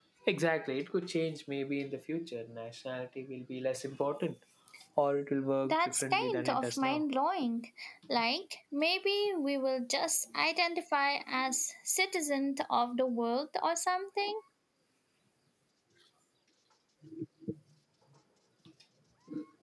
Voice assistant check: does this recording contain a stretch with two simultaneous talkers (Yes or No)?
Yes